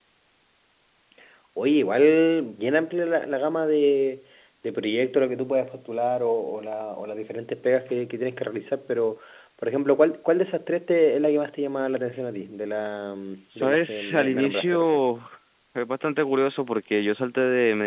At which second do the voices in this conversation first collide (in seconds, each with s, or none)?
13.5 s